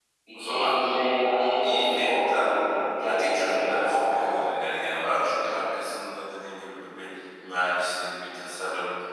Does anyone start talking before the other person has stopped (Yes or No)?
Yes